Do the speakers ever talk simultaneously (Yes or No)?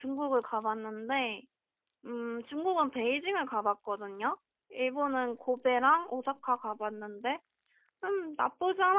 No